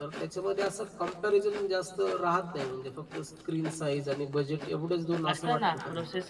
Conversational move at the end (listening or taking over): taking over